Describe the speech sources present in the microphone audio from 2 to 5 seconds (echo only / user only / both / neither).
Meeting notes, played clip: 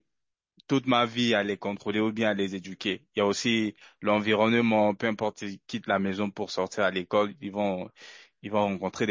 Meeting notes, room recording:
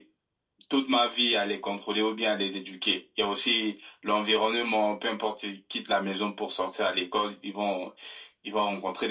echo only